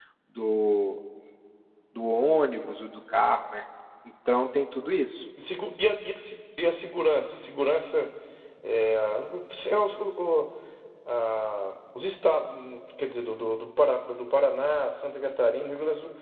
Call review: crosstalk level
none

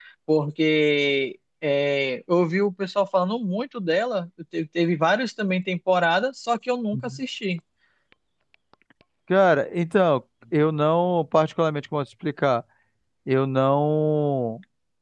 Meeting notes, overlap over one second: none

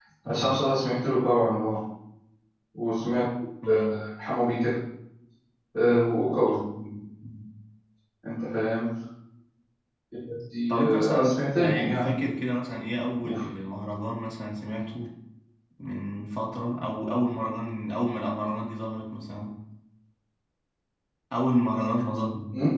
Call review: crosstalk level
present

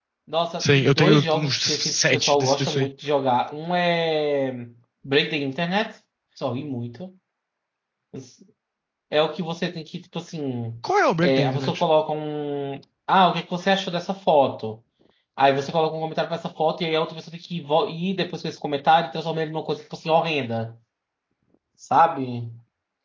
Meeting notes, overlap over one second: present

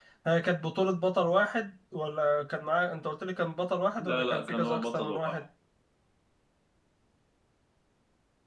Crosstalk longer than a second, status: present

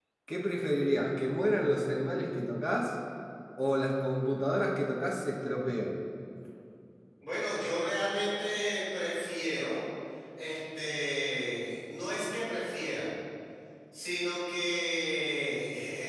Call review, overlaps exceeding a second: none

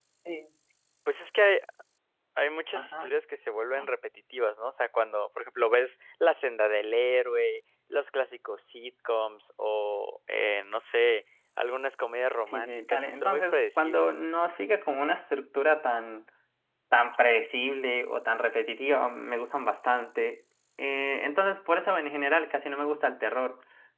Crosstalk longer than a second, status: present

